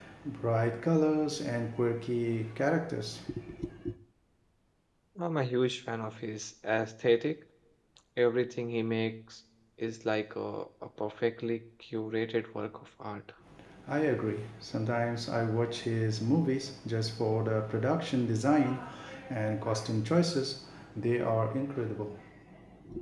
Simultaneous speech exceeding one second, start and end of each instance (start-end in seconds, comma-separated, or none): none